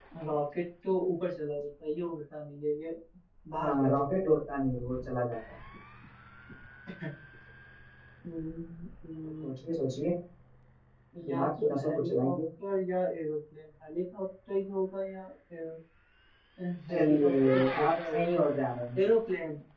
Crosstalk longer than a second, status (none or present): present